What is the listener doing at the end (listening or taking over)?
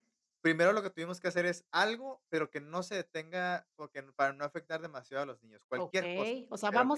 taking over